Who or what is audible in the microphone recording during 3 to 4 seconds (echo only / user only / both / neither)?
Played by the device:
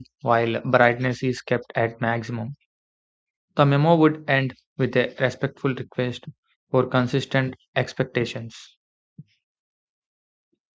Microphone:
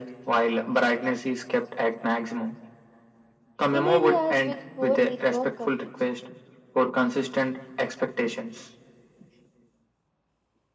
both